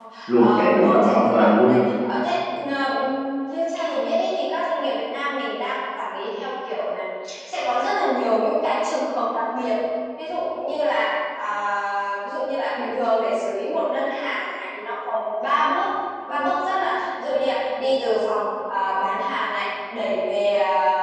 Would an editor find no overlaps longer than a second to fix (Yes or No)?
No